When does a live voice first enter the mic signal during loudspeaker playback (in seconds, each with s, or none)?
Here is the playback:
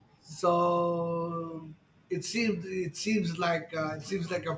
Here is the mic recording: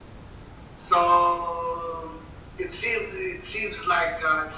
none